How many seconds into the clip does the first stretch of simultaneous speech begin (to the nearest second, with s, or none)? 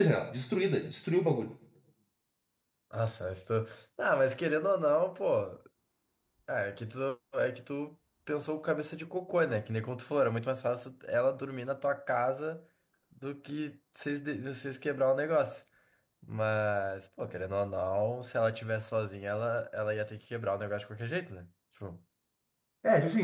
none